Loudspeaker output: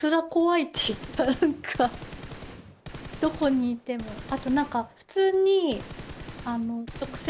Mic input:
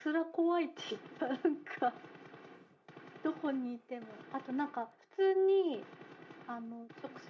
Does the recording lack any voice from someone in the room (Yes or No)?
Yes